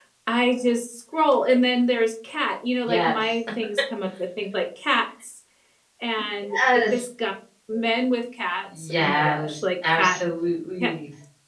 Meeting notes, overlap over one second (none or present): present